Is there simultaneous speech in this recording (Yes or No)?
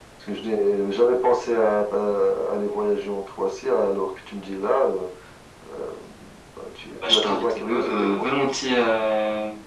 Yes